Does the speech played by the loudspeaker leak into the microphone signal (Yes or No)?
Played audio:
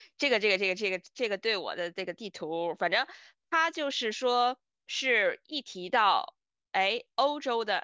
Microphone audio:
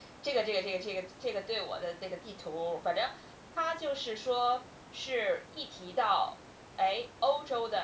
Yes